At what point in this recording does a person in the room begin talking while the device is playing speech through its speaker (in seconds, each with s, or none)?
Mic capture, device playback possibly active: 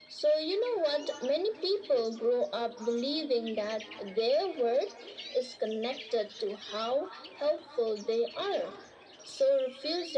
none